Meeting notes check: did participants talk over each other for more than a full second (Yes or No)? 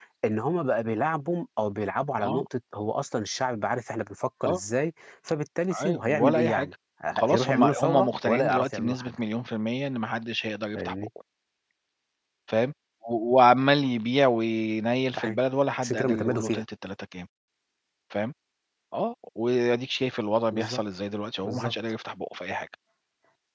Yes